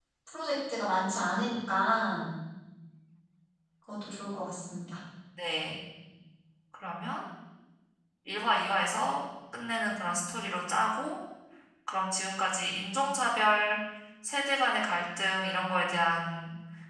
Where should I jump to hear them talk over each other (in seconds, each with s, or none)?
none